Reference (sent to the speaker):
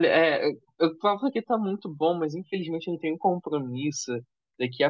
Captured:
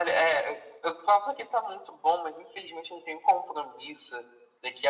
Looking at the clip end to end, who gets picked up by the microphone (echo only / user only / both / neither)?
echo only